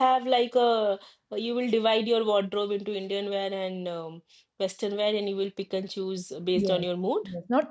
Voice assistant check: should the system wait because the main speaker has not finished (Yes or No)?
No